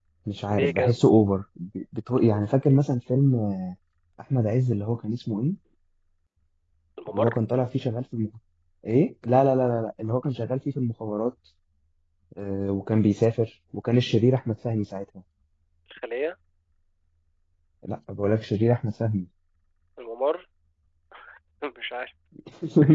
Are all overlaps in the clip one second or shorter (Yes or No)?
Yes